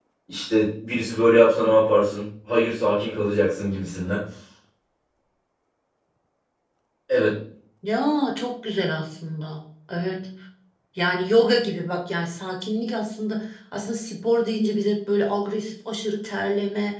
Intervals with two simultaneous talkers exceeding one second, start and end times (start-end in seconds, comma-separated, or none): none